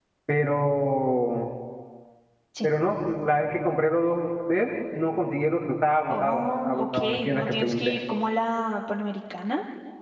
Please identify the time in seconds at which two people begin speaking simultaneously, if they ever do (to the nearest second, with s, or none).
6 s